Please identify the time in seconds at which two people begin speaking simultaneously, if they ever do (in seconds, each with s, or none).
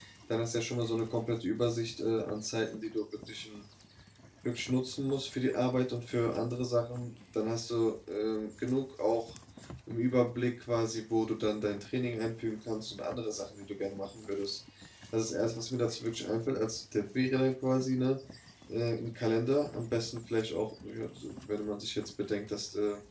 none